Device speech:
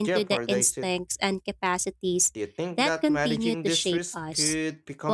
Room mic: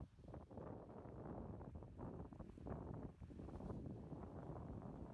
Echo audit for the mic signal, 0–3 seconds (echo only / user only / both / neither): neither